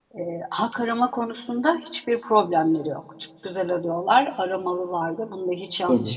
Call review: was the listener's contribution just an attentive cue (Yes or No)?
Yes